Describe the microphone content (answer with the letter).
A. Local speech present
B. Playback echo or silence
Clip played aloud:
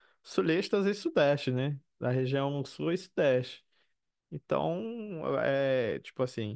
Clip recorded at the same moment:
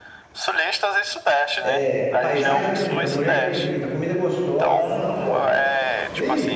A